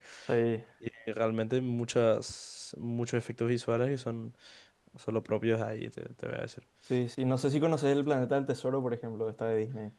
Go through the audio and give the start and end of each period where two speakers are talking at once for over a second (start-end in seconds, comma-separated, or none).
none